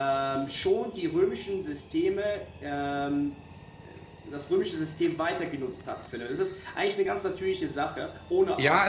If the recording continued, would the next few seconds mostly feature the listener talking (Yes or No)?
Yes